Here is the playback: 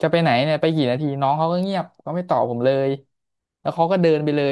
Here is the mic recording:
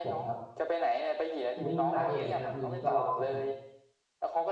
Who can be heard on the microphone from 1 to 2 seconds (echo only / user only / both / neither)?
both